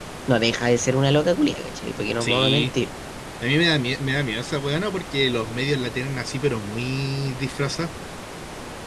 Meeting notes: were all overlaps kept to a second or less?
Yes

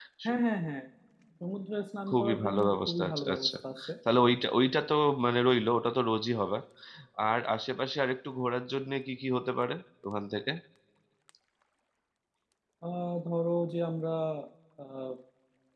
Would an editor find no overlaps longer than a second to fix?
No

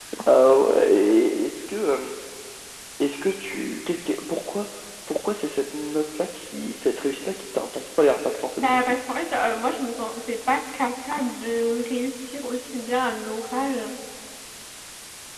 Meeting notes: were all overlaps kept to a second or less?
Yes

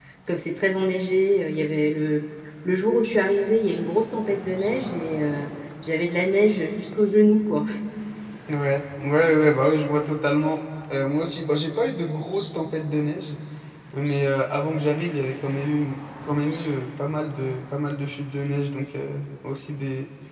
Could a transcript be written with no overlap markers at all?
Yes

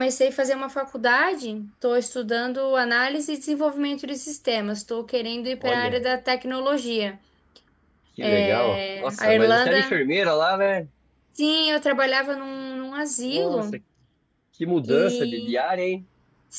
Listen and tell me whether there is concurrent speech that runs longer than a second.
Yes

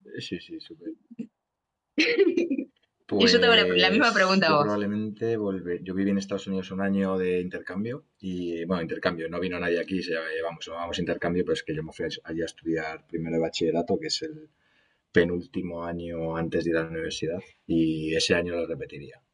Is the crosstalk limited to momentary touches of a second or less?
No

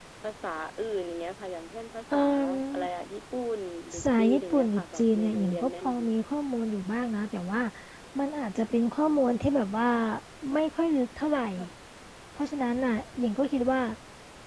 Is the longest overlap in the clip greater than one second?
Yes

